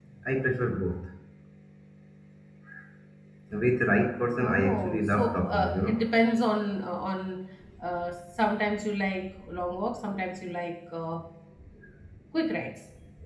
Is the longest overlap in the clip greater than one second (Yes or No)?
Yes